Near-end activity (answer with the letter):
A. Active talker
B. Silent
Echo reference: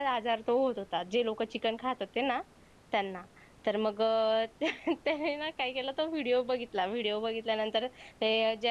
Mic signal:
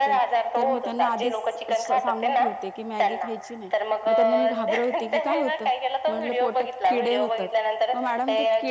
A